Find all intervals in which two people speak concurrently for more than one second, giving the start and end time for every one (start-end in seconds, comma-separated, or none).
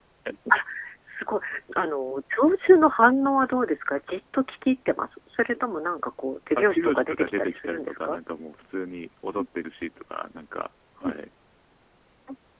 6.6-8.2